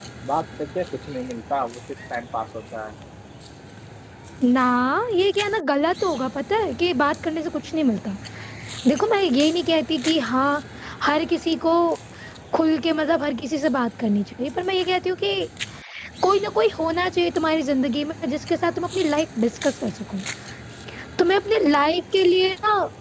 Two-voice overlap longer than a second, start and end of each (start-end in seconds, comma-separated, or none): none